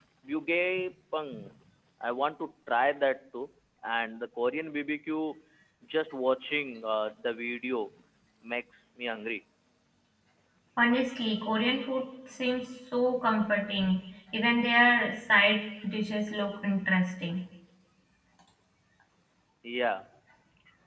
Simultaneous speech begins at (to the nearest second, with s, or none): none